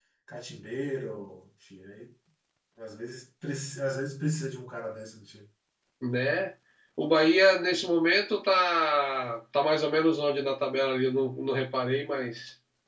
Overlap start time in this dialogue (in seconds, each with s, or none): none